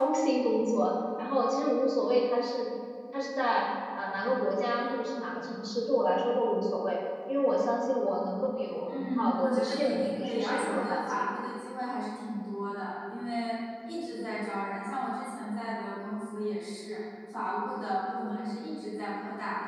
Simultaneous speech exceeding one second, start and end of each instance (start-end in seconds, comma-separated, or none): 8.9-11.2